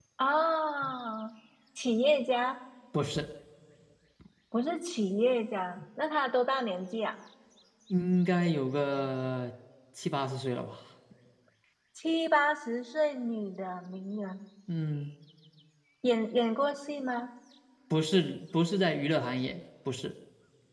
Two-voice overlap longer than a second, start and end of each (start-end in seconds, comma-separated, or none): none